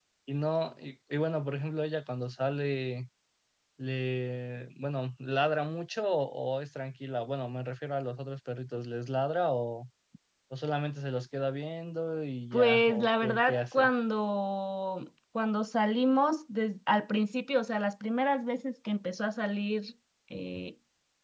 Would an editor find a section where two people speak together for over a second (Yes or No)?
Yes